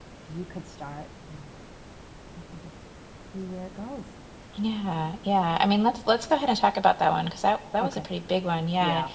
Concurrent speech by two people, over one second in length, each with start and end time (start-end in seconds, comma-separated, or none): none